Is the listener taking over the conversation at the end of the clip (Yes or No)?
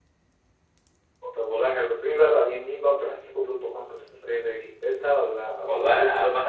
Yes